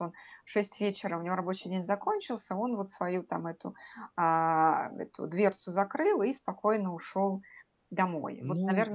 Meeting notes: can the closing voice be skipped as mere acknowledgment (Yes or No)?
No